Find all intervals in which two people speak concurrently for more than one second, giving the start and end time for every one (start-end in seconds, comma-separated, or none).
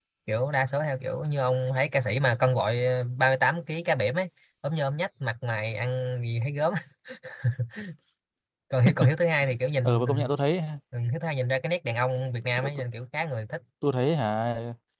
none